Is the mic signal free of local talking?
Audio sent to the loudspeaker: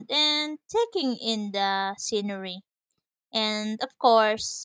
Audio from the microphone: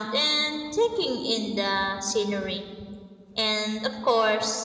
Yes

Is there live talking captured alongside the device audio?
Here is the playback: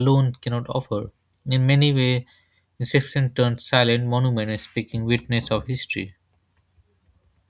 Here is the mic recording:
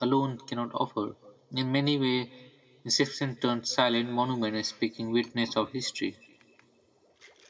No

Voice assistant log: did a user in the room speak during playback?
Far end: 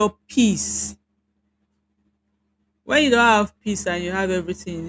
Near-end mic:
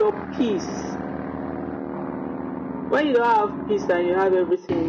No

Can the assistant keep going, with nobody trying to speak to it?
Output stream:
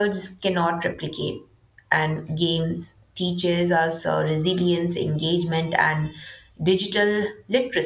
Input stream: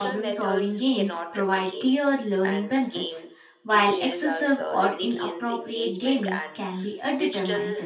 No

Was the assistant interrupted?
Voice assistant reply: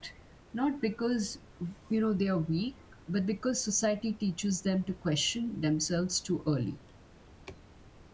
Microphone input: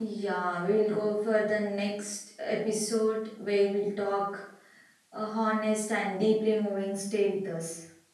Yes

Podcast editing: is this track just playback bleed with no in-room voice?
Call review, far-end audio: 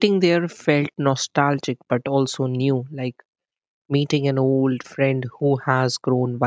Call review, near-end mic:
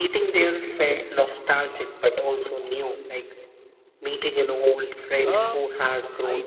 No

